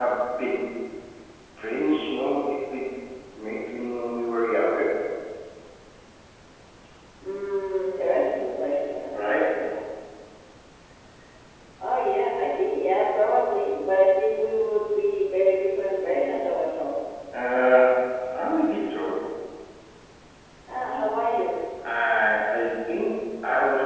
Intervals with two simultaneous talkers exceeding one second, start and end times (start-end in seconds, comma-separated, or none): none